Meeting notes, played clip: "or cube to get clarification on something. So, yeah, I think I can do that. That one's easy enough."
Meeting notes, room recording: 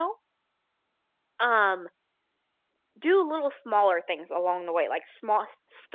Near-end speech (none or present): present